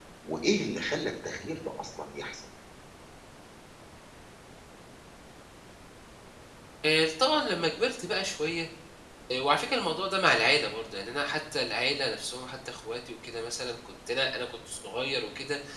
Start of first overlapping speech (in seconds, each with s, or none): none